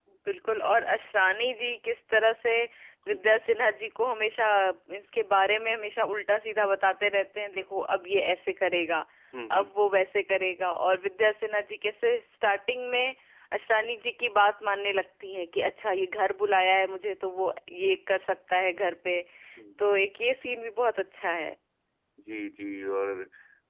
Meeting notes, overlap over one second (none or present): none